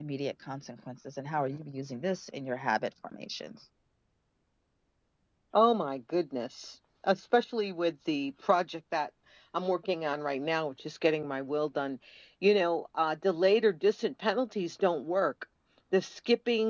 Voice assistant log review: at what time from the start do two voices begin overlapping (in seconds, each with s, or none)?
none